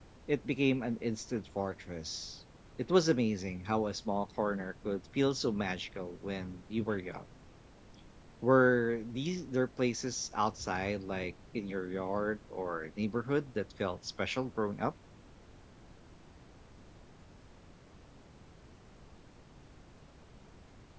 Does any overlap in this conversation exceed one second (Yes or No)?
No